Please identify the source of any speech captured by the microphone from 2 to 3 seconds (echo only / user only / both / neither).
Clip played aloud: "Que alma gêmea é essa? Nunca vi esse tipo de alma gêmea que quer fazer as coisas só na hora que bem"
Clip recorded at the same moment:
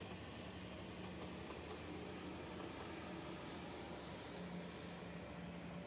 neither